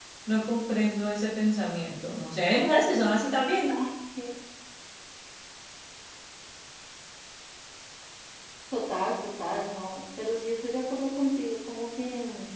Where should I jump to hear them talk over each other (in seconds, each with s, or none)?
none